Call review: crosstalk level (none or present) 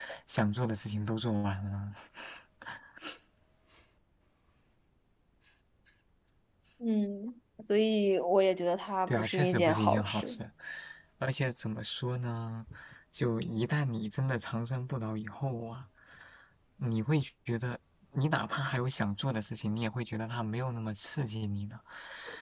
present